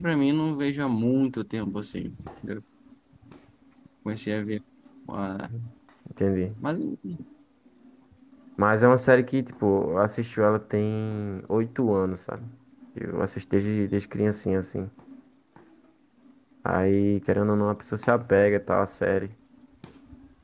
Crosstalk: none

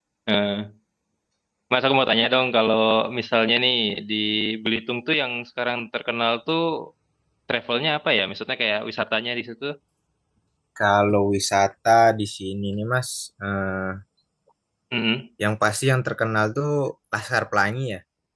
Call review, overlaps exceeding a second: none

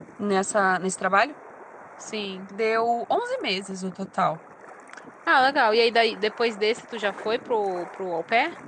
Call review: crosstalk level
none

